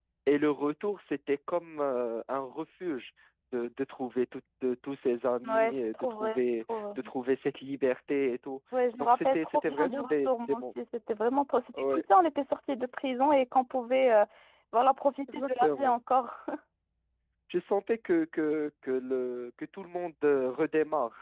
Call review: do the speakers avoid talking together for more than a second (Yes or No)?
No